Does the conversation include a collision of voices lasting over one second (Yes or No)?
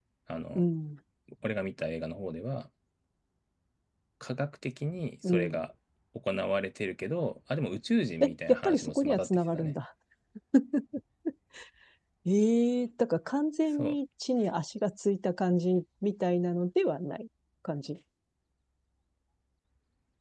Yes